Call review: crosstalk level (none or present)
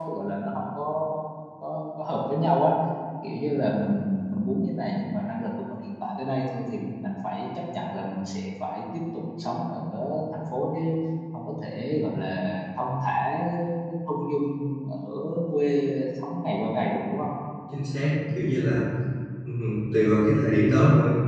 none